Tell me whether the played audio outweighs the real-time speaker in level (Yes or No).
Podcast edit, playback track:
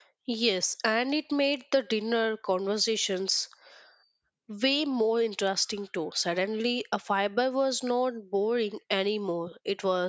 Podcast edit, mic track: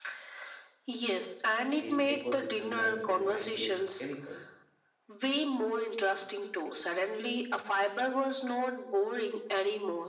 Yes